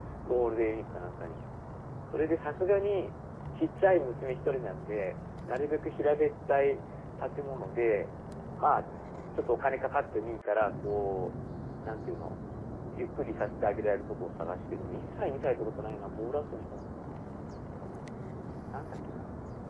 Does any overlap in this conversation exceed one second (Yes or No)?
No